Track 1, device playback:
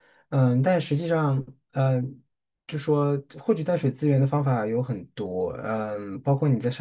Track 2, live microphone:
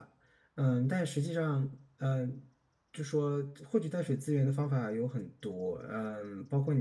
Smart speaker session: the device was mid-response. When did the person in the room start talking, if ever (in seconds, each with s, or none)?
none